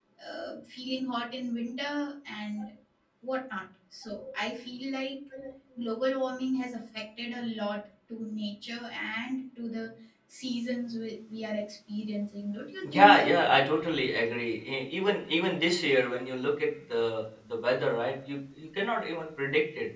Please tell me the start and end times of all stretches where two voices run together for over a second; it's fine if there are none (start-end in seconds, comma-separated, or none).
none